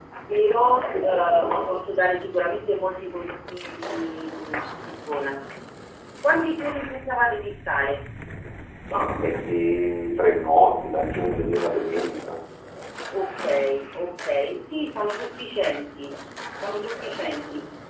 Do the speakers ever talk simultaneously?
Yes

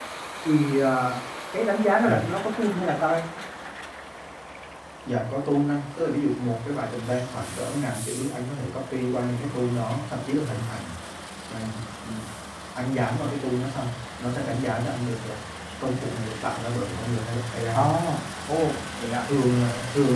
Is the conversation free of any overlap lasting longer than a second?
Yes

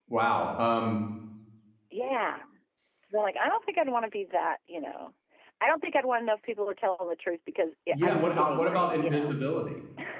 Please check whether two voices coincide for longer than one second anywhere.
Yes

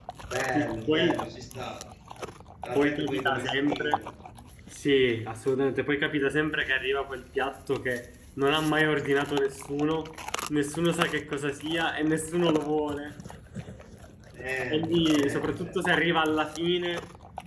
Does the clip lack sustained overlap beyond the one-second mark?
No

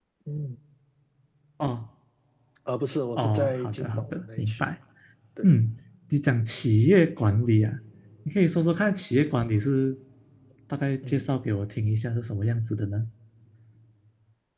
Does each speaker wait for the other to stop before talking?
No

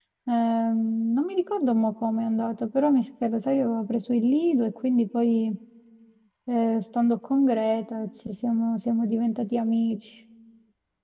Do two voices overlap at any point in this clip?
No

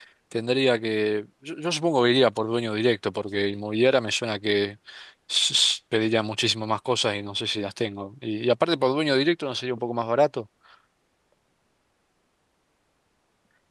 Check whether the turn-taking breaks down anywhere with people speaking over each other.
No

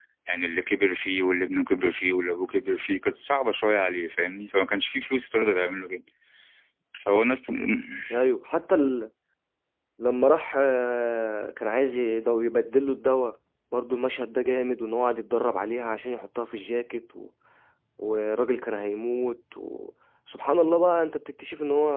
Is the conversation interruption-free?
Yes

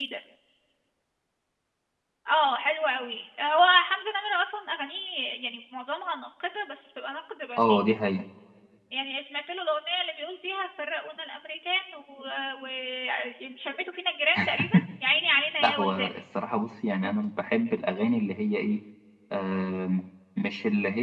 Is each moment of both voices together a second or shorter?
Yes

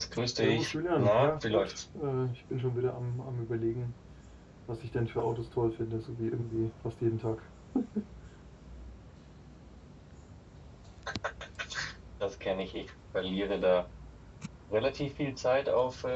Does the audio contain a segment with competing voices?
Yes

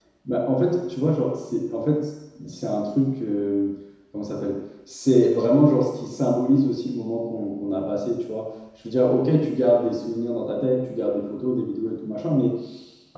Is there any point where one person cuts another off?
No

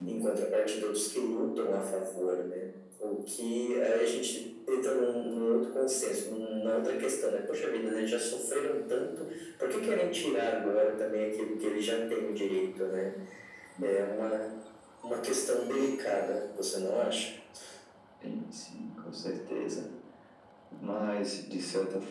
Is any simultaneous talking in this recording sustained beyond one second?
No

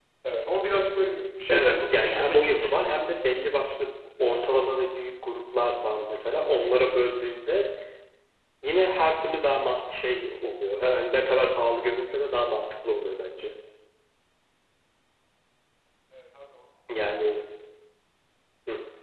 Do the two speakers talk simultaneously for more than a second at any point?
Yes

